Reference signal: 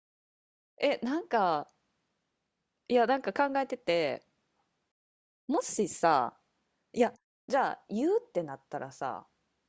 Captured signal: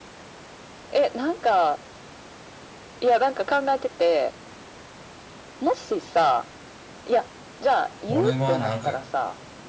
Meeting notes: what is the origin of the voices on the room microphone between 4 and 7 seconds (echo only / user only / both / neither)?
echo only